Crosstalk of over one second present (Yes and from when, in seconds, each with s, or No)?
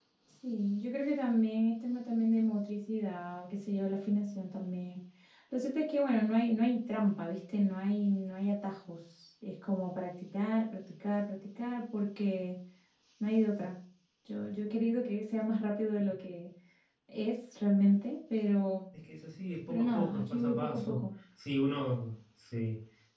Yes, from 19.7 s